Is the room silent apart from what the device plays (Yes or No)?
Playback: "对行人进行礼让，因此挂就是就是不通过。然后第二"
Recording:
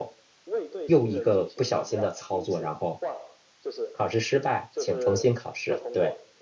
No